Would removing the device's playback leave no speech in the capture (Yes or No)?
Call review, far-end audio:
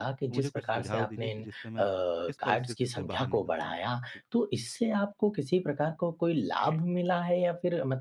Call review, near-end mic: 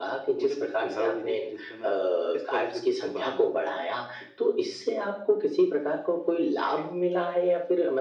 Yes